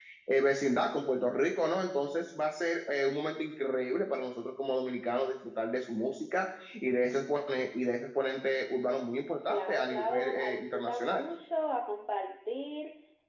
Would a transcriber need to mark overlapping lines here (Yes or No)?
Yes